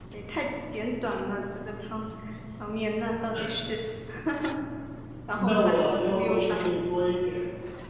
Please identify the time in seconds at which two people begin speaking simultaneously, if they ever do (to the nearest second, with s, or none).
5 s